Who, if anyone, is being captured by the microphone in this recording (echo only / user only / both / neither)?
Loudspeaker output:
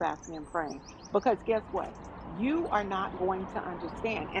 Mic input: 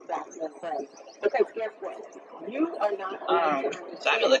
both